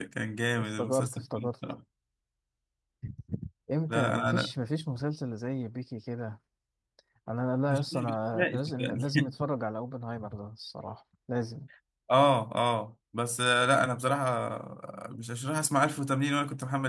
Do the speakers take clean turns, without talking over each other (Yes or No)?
No